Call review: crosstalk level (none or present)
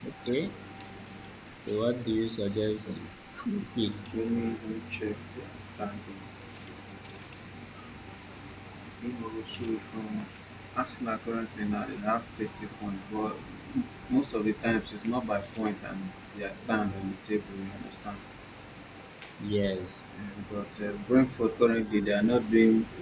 none